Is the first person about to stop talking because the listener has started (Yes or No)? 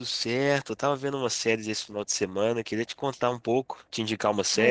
Yes